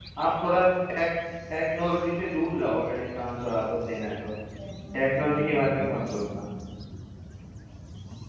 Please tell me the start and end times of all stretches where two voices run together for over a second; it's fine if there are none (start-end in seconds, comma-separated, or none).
4.9-6.4